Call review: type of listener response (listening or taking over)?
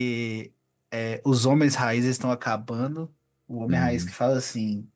listening